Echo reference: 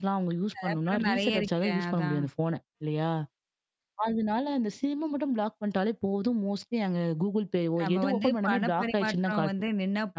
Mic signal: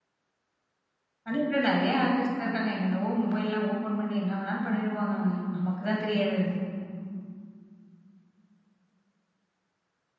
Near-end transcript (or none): ஆனா, இப்ப நெறைய ஆக்கர்ஸ்லாம் இருக்காங்க. என்னென்னவோ மொபைல்லலாம் ஓப்பன் பண்ணி என்ன வேணாலு பண்ணிடுவாங்கங்க. நமக்கு தான் தெரியாது அது.